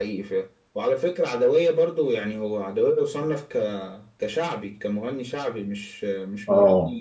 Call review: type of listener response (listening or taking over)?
listening